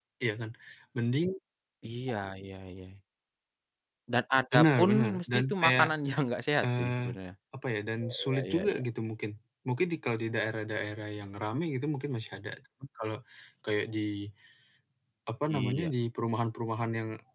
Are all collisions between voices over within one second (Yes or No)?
No